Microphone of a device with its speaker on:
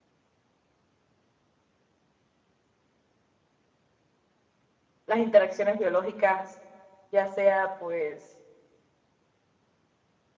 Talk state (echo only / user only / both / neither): user only